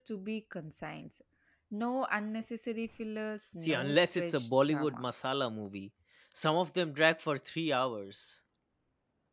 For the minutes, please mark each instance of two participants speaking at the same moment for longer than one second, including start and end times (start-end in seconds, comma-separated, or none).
3.6-5.1